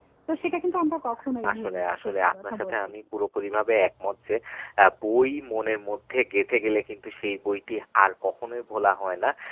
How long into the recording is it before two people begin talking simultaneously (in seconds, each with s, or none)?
1.4 s